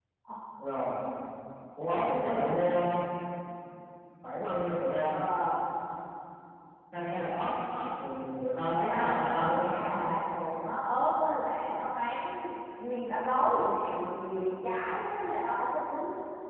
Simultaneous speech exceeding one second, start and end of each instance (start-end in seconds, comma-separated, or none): 8.9-10.1